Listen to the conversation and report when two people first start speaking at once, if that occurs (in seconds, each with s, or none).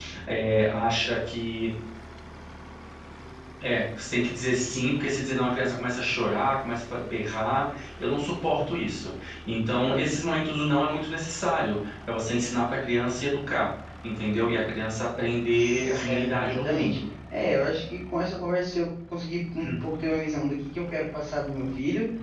15.6 s